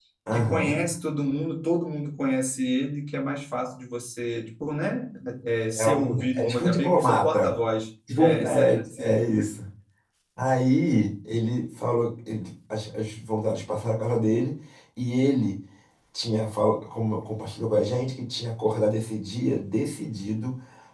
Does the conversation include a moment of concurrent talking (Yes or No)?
Yes